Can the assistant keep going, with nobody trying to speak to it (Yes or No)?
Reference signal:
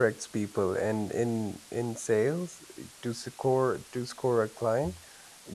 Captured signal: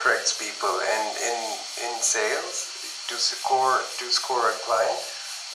Yes